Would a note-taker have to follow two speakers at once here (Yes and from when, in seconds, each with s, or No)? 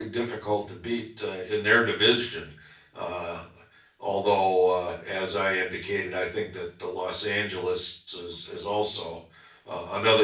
No